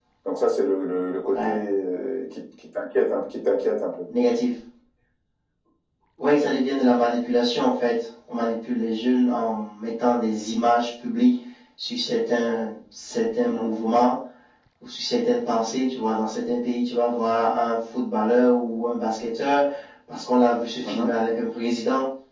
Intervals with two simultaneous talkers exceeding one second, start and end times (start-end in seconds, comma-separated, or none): none